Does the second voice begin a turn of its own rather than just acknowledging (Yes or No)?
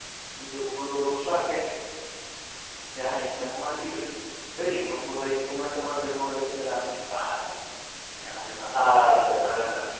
No